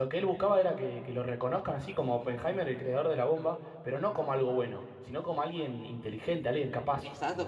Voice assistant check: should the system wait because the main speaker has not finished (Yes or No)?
No